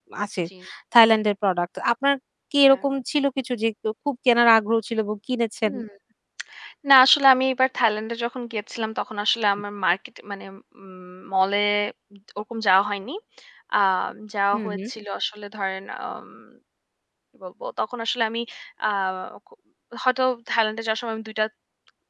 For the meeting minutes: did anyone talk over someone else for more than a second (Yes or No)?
No